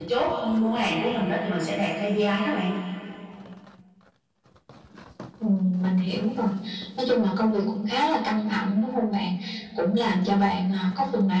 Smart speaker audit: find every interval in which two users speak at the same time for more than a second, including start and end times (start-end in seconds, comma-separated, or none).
none